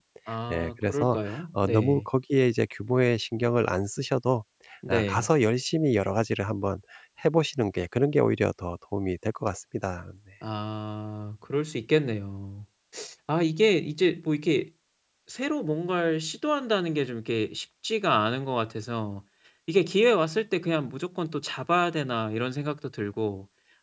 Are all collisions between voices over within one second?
No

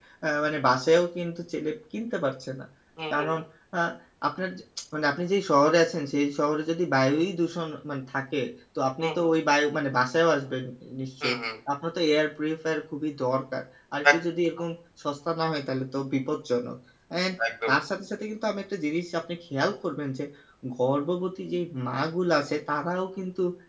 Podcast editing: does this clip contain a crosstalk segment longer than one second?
No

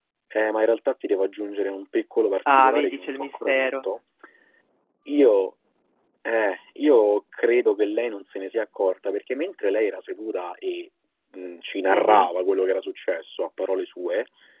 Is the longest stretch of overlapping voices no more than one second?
No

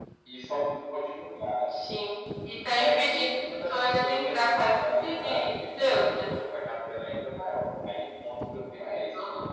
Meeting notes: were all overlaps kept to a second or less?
No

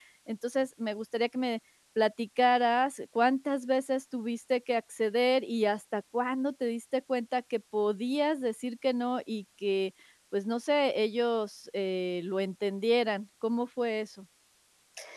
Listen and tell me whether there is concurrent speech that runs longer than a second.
No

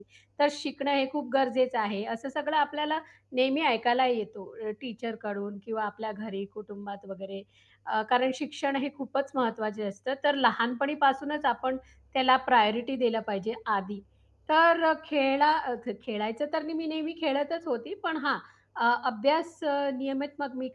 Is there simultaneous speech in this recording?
No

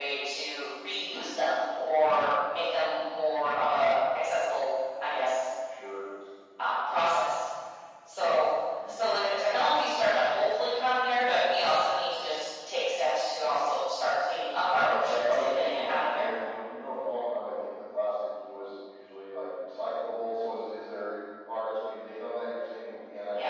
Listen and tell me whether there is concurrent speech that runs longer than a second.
Yes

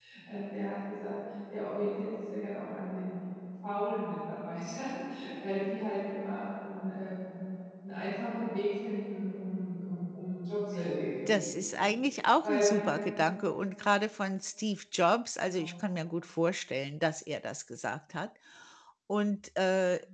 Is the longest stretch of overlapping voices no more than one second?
Yes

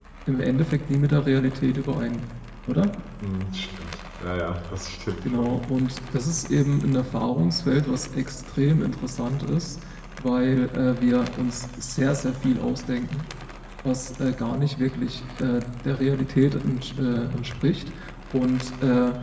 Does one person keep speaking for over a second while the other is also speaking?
No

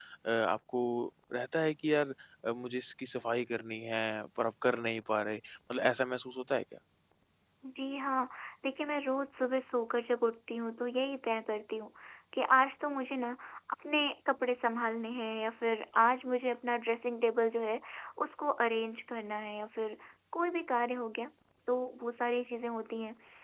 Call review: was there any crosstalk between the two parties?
No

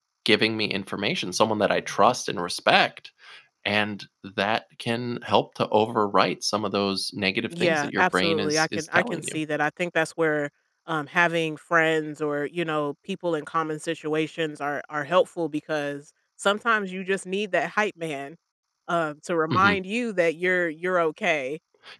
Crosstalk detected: Yes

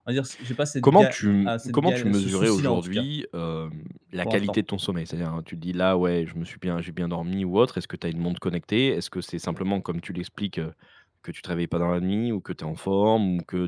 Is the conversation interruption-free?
No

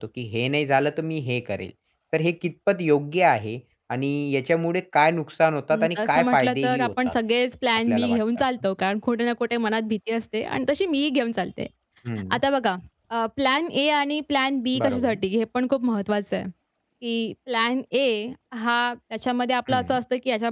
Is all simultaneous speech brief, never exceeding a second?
No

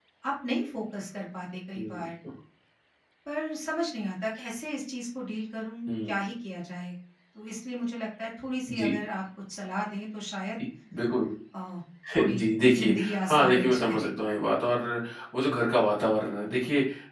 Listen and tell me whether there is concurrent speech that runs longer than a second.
Yes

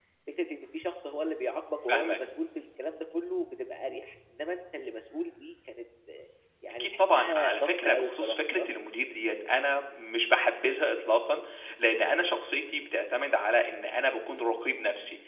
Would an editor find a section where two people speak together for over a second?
Yes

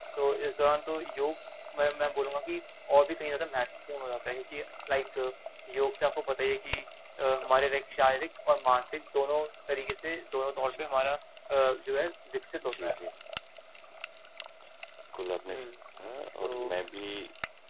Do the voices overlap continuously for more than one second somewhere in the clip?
No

